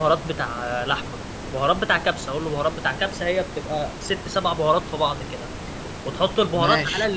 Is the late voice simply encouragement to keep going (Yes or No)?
Yes